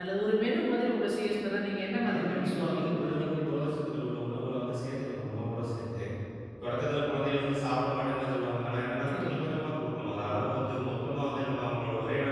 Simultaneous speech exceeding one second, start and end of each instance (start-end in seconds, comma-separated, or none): 2.0-3.6